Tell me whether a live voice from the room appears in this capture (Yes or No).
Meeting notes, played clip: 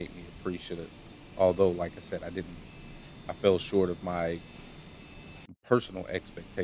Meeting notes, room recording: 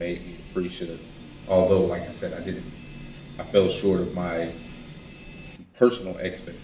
No